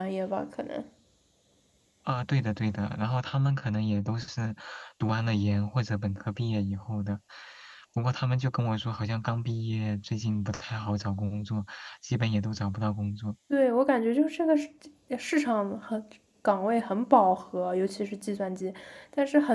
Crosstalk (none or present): none